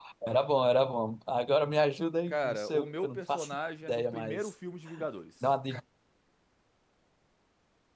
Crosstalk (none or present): present